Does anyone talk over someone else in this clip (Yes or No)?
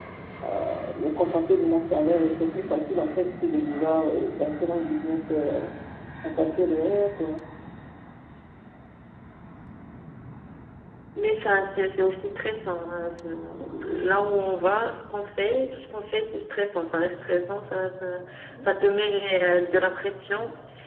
No